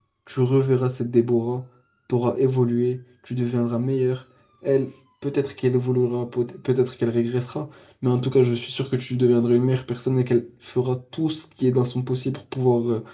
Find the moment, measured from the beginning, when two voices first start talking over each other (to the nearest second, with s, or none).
none